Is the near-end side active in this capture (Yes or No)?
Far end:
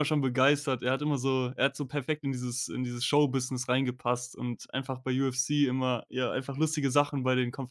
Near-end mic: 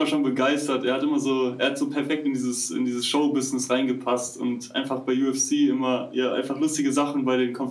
No